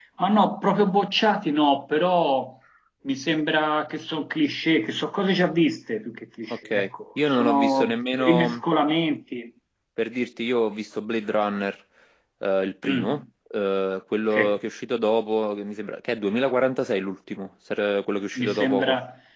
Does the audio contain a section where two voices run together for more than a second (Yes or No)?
Yes